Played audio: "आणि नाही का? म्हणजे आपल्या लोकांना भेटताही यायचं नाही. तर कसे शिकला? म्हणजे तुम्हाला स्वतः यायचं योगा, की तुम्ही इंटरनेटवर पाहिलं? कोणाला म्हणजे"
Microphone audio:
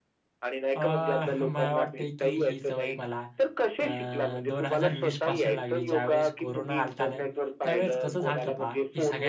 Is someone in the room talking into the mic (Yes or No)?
Yes